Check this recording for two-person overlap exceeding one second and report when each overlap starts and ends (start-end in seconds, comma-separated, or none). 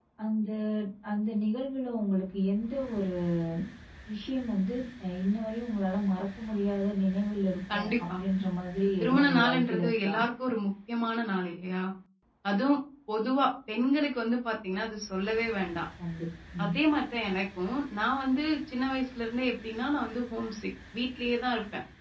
8.8-10.1